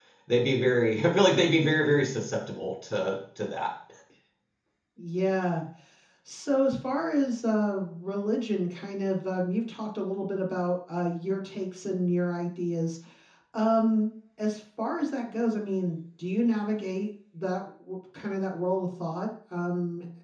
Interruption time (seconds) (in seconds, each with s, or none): none